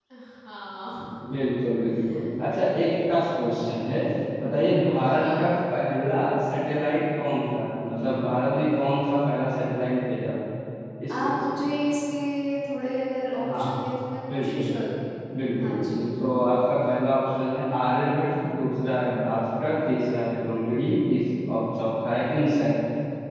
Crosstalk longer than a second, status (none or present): none